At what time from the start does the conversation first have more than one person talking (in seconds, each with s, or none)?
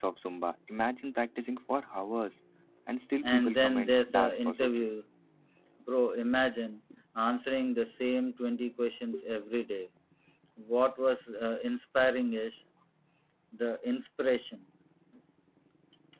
3.3 s